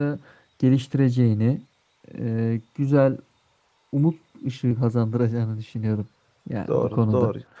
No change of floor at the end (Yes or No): No